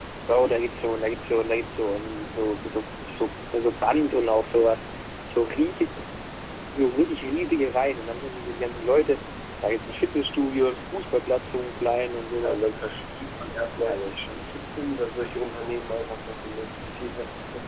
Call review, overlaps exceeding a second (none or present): none